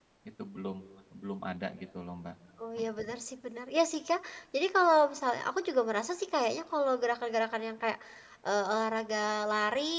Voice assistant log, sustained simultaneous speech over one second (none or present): none